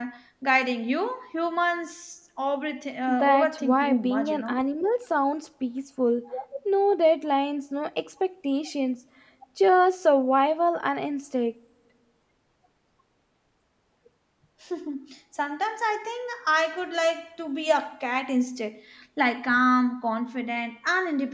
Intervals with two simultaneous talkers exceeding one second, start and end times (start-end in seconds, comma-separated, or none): 3.1-4.6